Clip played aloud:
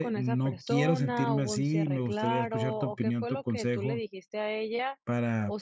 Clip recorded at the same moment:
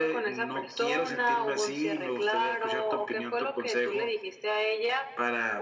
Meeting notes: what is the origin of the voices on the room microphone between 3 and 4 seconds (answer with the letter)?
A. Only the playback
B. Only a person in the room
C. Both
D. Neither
A